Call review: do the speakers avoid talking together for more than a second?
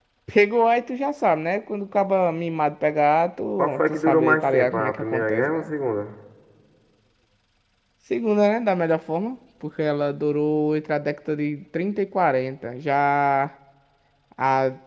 No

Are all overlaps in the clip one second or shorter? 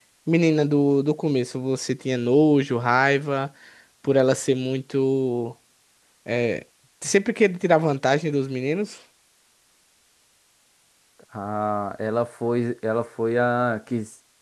Yes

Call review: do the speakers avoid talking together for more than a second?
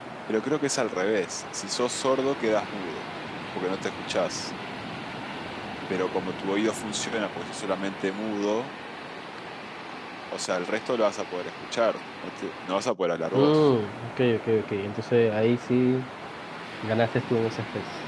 Yes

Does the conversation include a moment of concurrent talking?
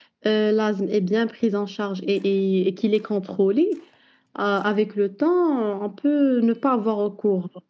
No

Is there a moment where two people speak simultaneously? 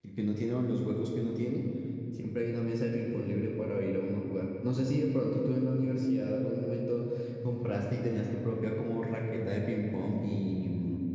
No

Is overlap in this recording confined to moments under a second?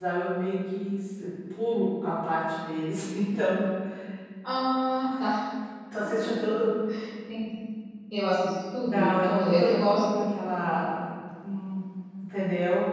No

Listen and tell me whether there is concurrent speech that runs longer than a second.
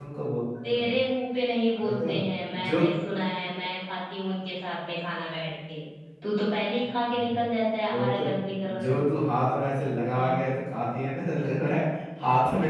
No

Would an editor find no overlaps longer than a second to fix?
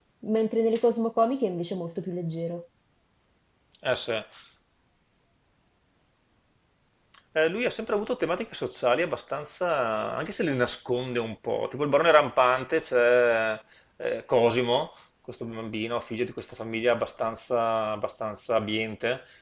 Yes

